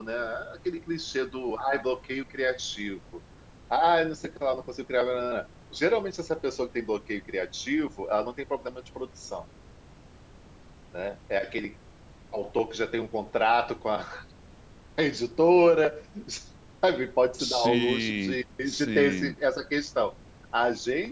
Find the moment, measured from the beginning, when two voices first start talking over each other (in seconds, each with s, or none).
17.4 s